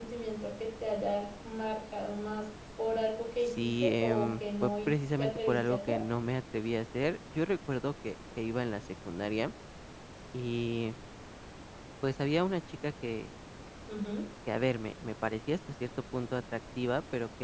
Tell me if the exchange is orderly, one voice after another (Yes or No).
No